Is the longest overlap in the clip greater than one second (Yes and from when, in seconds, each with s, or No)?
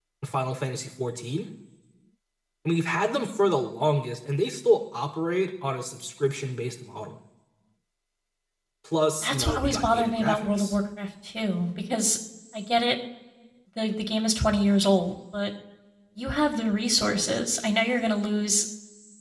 Yes, from 9.2 s